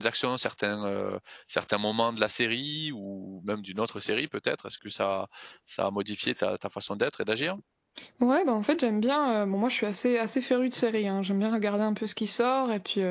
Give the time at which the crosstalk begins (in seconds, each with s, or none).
none